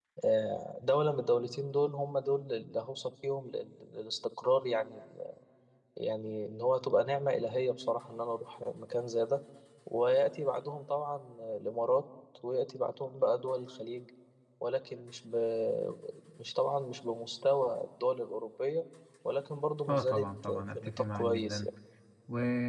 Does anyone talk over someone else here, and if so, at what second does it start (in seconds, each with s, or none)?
19.9 s